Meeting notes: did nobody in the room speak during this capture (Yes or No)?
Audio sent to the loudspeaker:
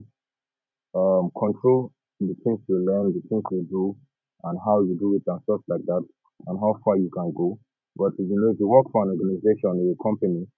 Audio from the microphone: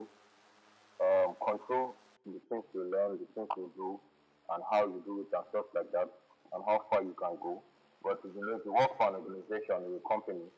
Yes